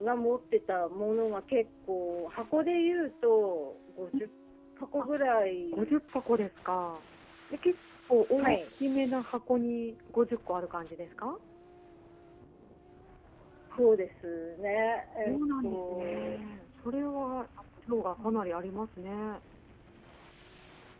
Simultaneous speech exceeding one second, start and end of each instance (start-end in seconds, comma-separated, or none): 15.2-16.4